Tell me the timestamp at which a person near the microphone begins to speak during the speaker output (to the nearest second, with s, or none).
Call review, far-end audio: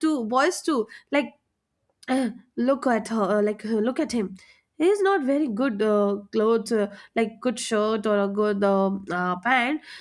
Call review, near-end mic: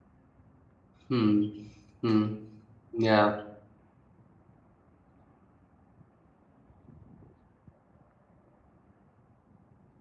1 s